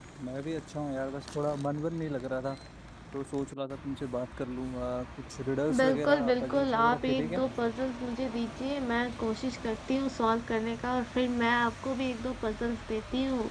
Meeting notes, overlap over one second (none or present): present